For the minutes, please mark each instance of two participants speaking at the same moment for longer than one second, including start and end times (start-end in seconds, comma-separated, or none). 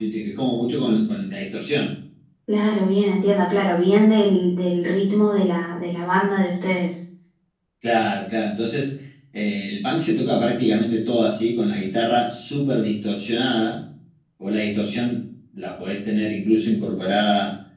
none